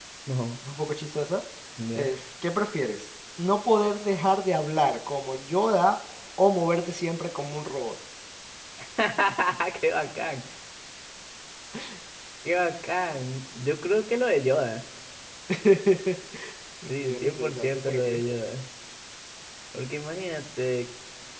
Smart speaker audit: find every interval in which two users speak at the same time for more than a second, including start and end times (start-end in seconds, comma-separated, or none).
16.9-18.2